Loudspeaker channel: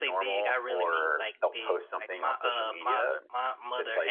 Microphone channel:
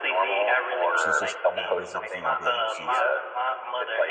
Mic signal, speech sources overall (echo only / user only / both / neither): both